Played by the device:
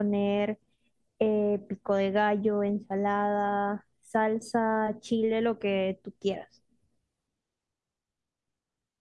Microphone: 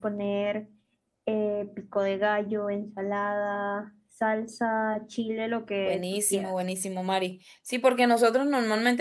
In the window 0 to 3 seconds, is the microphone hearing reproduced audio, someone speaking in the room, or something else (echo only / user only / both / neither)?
echo only